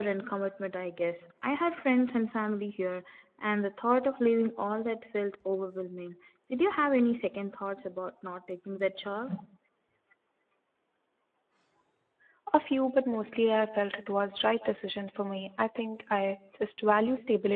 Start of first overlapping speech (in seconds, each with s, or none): none